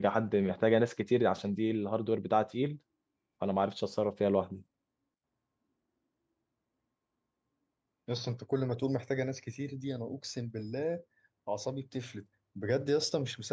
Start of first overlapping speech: none

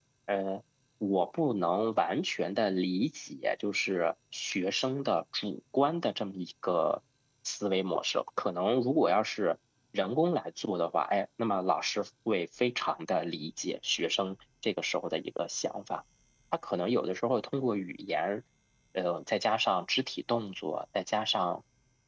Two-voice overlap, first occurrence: none

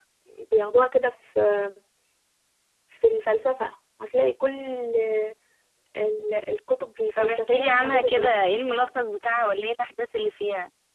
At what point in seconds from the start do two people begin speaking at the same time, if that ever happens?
7.2 s

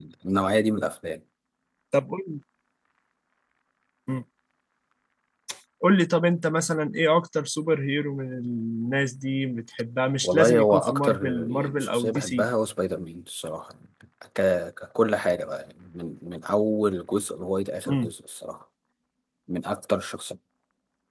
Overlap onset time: 10.2 s

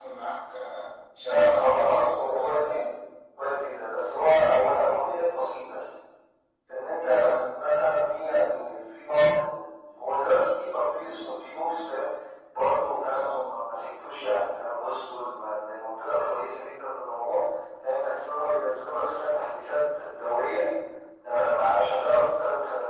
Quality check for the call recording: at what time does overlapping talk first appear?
1.2 s

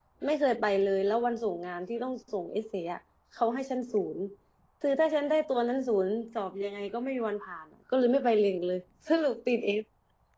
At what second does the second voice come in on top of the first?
none

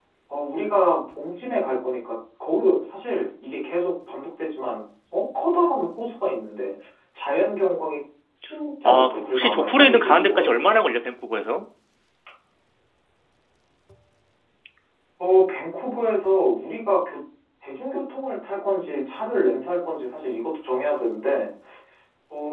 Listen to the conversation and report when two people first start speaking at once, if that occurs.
8.8 s

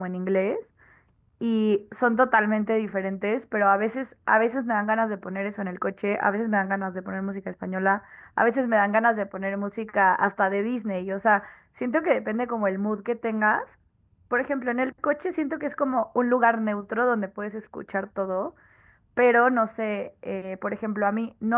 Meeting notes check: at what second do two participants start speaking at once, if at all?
none

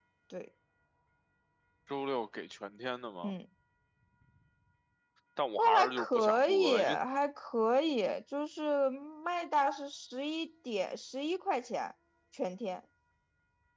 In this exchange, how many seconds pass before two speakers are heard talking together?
5.6 s

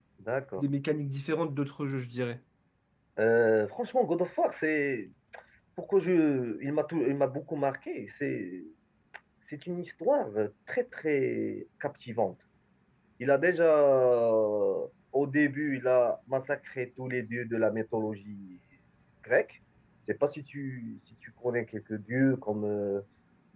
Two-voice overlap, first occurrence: none

